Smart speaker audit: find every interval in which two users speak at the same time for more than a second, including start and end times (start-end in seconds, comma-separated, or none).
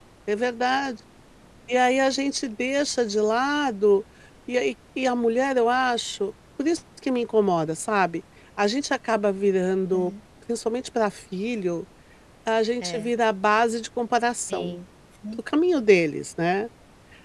none